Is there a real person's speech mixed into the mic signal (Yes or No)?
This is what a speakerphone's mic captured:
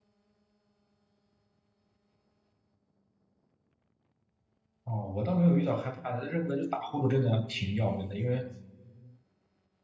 Yes